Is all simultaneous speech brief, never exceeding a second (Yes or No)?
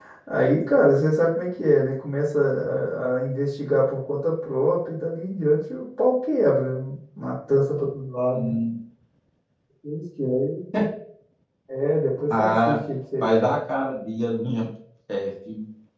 Yes